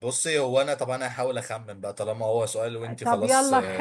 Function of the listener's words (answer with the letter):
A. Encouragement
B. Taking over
B